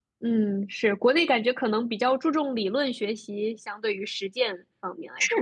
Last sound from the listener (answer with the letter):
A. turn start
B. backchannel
A